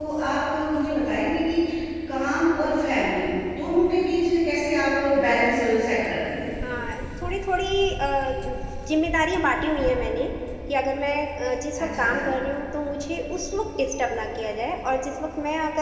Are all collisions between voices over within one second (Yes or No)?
Yes